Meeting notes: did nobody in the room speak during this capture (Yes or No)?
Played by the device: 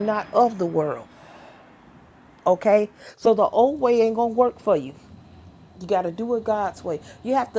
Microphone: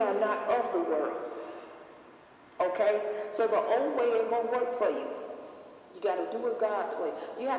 Yes